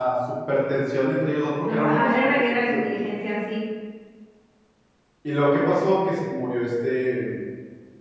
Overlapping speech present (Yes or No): Yes